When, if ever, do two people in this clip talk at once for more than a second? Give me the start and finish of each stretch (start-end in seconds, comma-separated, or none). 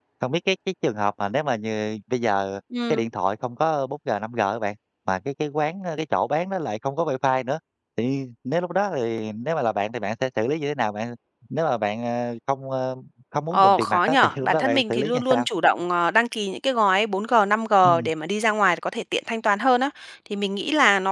13.5-15.5